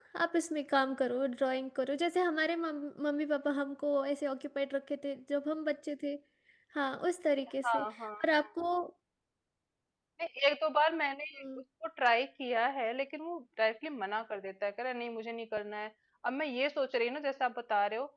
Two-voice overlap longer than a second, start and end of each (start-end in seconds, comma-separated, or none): none